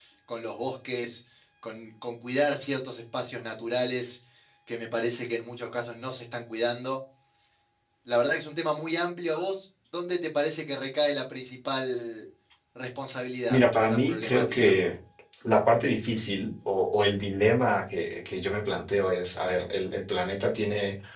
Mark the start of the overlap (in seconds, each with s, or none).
13.5 s